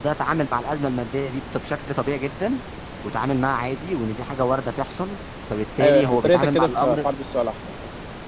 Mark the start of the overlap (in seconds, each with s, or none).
5.8 s